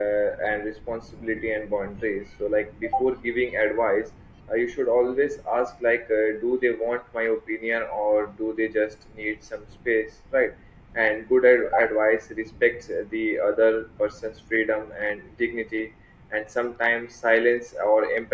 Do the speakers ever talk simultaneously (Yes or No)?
No